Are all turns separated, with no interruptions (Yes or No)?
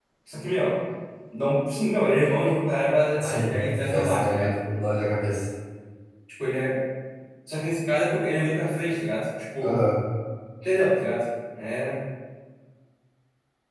No